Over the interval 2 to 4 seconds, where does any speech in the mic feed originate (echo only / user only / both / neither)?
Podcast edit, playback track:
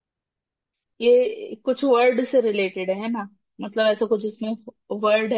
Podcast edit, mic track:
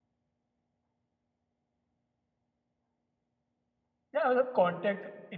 neither